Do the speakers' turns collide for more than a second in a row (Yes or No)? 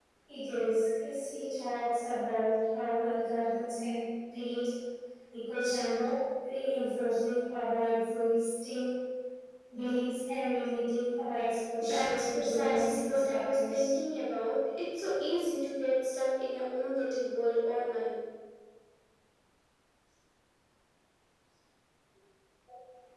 Yes